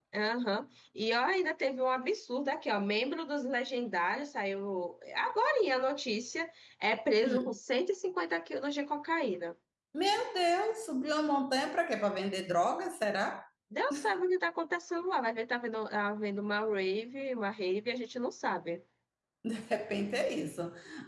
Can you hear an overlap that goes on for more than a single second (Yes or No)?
No